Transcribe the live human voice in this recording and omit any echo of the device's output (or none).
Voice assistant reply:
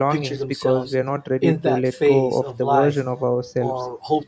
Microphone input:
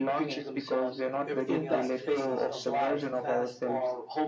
everything else is uh, shifting too fast.